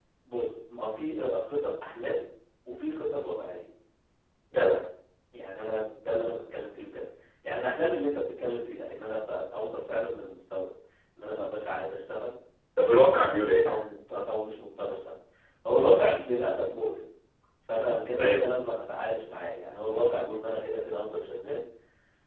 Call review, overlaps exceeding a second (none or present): none